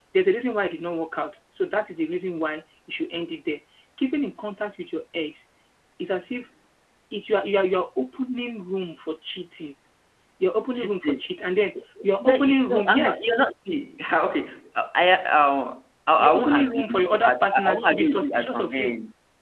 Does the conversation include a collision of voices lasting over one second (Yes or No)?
Yes